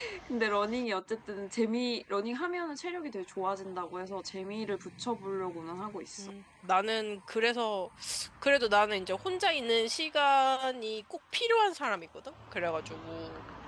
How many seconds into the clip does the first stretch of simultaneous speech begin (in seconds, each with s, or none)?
none